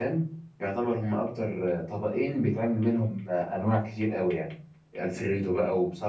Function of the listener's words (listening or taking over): listening